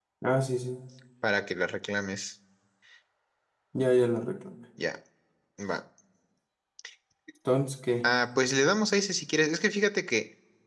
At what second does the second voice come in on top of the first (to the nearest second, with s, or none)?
none